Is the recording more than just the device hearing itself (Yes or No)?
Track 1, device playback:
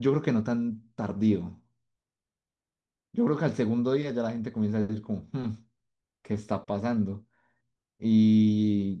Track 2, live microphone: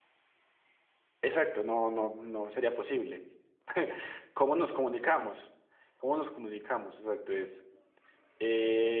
Yes